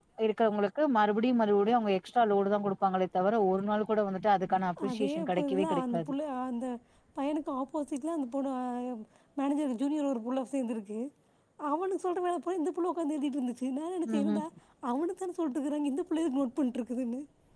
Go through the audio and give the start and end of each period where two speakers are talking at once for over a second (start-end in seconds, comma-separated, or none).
4.9-6.1